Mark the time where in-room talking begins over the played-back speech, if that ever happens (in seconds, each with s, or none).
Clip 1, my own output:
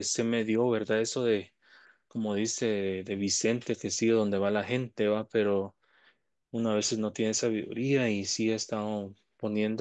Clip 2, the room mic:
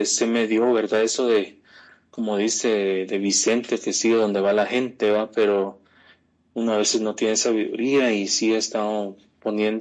none